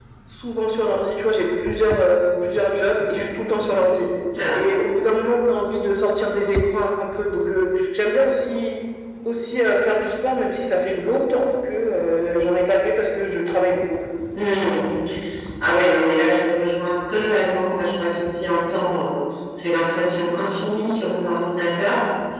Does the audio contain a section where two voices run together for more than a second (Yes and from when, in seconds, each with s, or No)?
No